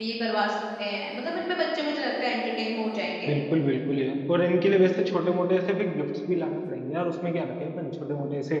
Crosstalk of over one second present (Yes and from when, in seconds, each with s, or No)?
No